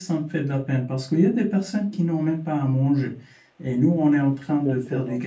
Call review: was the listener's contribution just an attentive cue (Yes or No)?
Yes